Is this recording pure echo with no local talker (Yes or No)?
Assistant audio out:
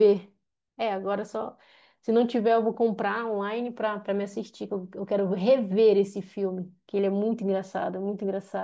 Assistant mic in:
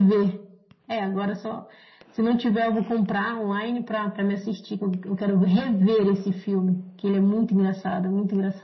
Yes